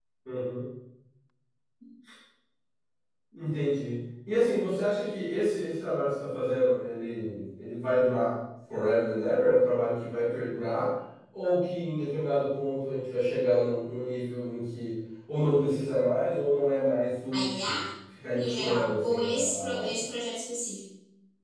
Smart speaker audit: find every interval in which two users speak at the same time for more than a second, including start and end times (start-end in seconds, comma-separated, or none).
18.3-20.0